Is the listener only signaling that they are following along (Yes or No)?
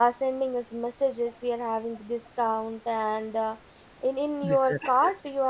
Yes